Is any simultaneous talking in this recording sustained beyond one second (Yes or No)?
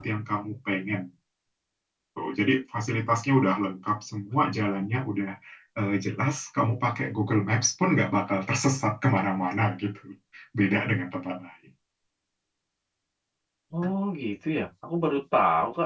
No